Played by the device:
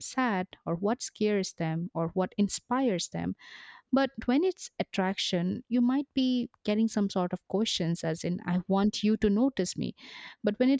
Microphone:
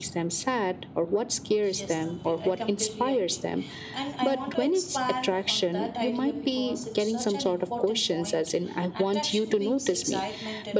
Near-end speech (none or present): present